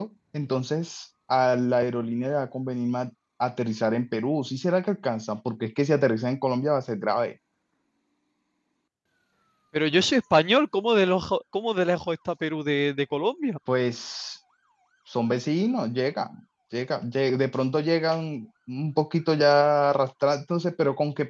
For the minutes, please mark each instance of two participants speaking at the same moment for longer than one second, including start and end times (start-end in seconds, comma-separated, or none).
none